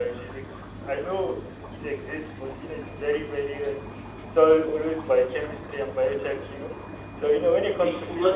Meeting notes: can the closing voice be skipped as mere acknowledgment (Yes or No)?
No